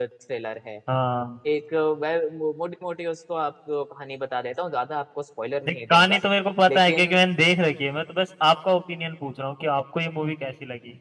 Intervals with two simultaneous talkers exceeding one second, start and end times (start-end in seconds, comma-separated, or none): none